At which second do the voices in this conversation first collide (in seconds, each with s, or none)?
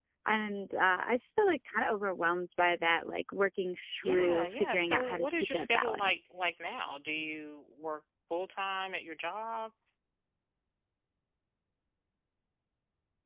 4.0 s